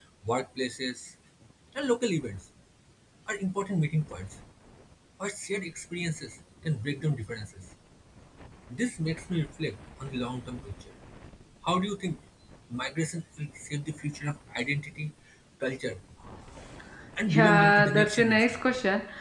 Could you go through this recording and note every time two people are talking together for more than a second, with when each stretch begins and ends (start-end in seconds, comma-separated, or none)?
17.3-18.5